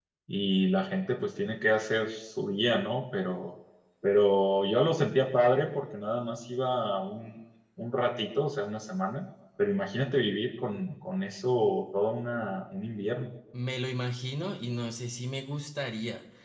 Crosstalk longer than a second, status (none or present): none